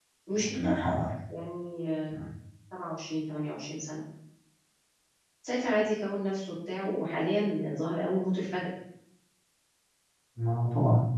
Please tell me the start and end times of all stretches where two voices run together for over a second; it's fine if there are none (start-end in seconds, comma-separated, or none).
none